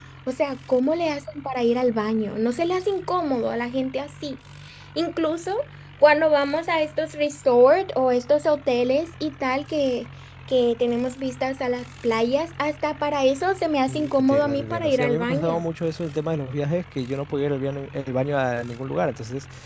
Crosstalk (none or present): present